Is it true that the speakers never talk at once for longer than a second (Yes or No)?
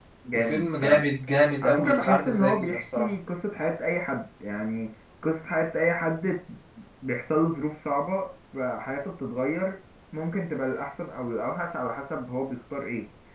No